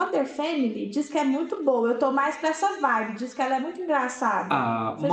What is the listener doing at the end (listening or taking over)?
taking over